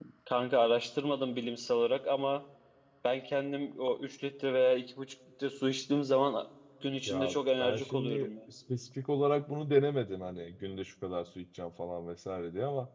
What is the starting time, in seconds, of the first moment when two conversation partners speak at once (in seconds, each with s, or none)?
7.1 s